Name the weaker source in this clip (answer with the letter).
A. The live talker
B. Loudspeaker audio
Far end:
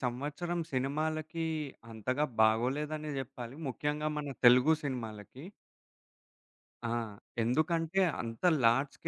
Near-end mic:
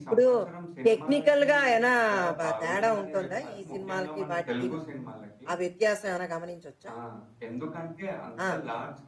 B